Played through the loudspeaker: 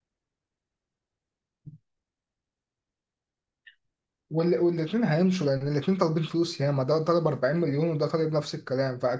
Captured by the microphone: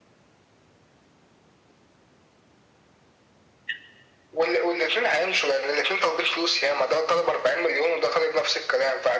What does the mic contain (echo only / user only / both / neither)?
echo only